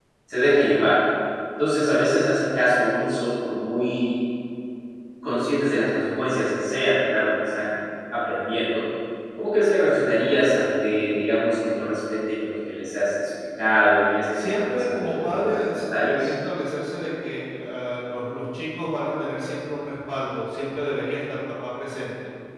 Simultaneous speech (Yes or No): Yes